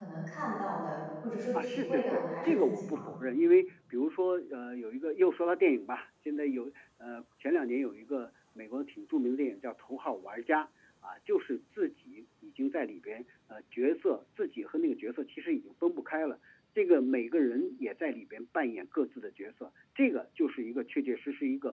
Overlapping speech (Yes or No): Yes